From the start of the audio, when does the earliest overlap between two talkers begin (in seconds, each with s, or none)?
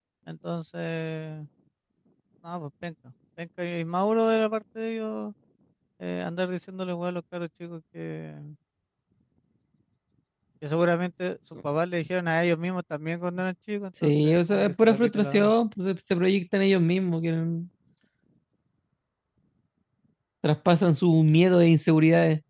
14.0 s